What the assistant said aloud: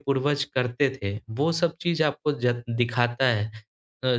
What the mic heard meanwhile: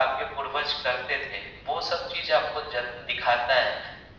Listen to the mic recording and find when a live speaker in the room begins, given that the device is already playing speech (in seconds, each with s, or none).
none